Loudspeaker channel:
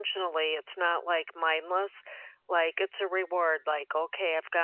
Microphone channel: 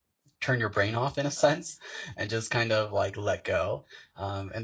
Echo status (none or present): none